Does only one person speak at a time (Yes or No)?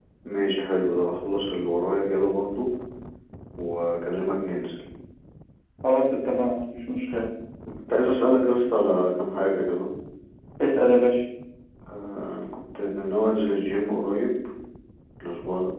Yes